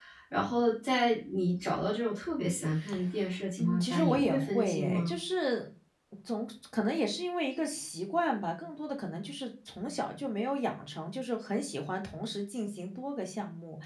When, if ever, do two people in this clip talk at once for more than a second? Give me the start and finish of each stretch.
3.6-5.1

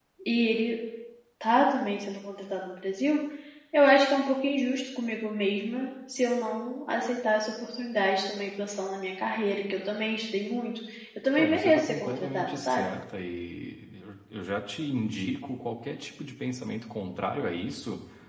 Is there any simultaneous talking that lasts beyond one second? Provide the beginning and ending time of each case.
11.4-12.9

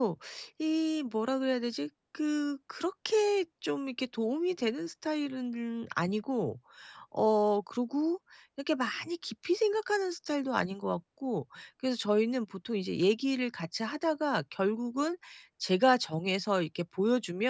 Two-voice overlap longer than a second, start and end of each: none

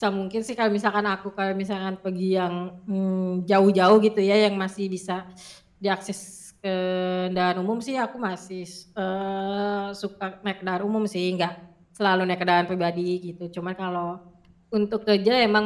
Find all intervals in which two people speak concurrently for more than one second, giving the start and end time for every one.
none

